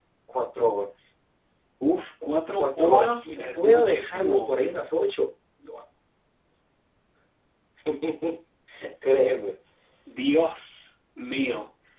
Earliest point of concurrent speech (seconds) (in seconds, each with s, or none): 2.6 s